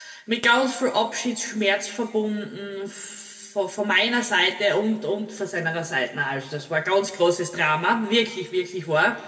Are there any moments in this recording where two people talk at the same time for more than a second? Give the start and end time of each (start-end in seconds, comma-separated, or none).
none